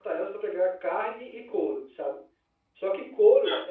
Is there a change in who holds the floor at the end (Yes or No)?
No